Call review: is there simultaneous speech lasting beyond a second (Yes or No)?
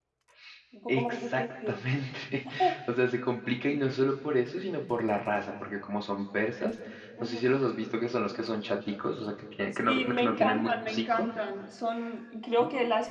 Yes